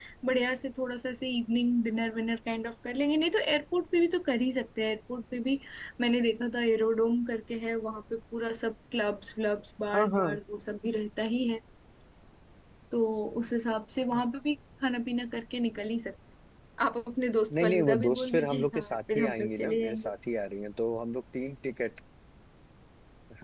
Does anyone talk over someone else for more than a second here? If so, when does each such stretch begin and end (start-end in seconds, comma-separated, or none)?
17.6-20.1